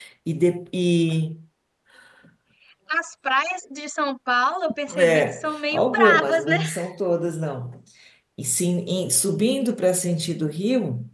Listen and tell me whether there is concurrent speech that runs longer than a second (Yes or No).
Yes